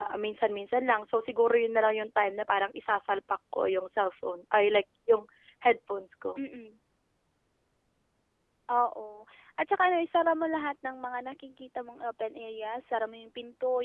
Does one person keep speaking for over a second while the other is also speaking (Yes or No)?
No